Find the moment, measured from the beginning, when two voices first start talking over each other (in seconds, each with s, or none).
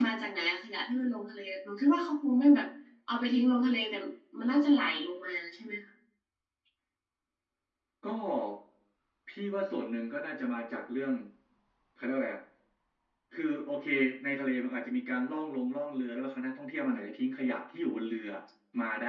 none